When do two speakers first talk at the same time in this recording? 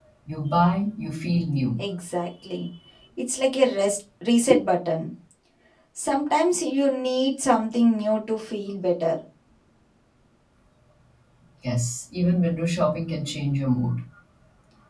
none

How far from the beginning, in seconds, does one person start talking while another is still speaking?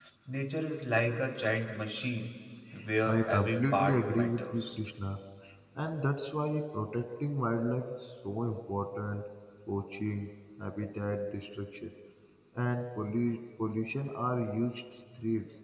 3 s

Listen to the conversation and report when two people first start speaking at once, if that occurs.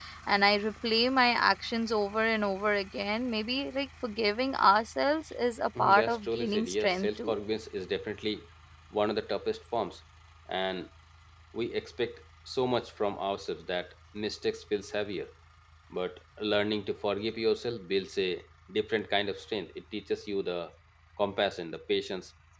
6 s

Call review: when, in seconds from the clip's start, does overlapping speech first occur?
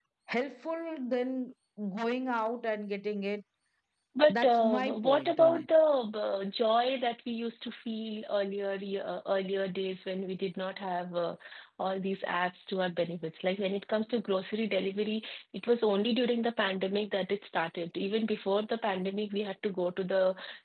4 s

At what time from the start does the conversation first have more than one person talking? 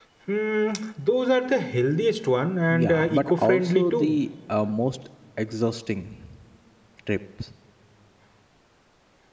3 s

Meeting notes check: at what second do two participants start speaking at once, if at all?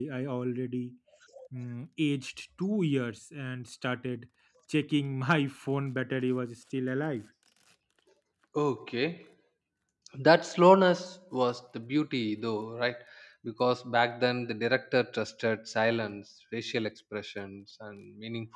none

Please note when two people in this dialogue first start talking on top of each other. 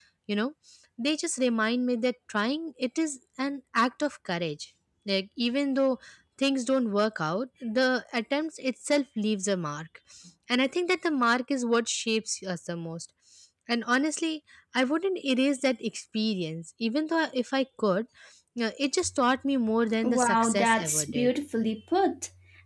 20 s

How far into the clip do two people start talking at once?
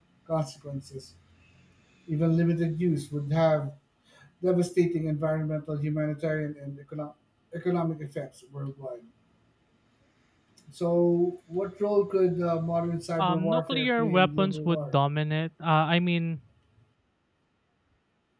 13 s

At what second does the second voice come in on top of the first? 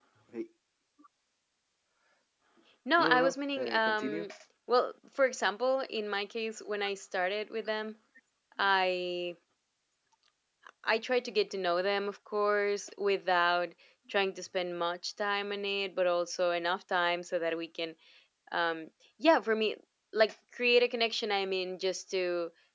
3 s

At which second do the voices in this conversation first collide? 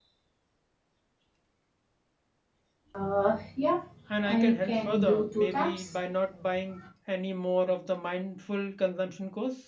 4 s

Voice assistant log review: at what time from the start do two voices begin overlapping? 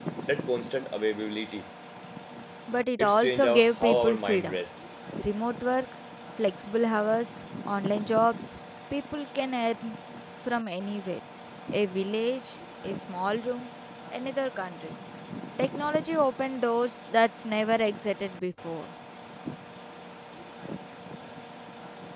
3 s

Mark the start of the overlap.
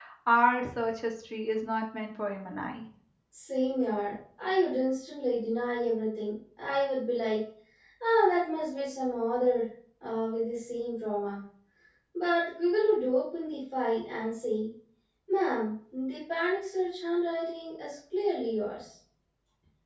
none

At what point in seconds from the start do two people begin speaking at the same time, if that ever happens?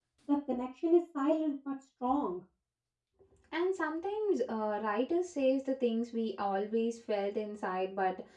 none

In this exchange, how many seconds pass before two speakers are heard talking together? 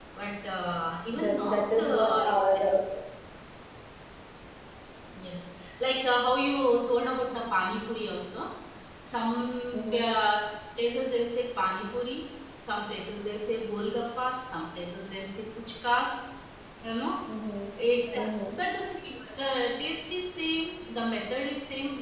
1 s

